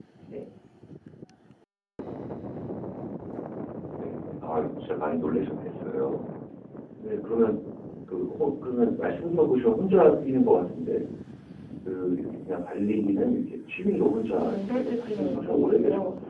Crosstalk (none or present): present